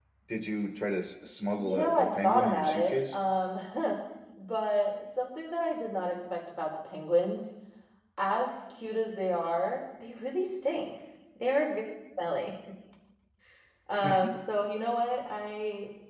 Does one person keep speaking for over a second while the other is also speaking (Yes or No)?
Yes